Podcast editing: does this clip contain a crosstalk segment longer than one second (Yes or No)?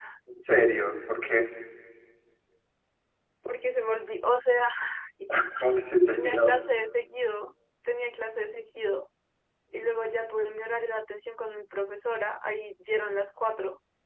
No